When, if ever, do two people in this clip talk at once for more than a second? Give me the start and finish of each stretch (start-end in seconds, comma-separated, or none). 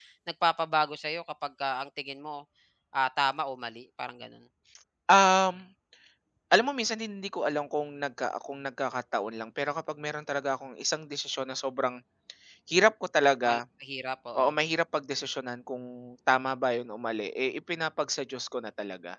none